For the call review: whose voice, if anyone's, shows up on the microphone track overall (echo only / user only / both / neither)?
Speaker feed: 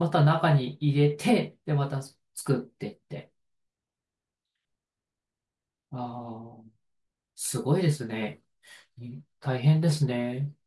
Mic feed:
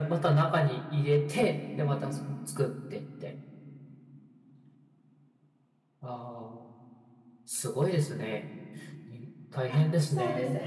both